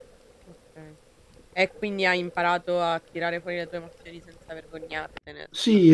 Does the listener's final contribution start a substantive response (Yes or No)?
Yes